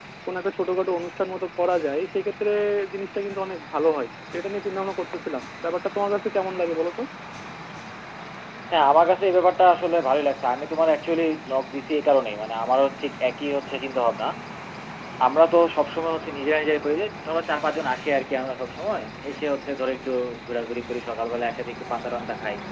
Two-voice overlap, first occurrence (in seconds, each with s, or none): none